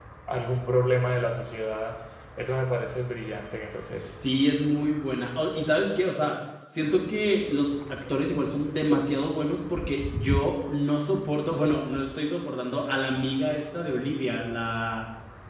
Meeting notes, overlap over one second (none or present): none